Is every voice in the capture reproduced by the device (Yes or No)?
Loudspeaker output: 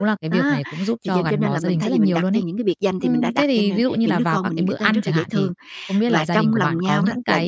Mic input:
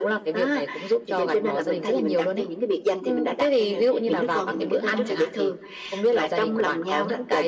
No